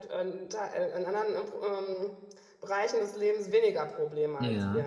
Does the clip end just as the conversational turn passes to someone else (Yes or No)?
Yes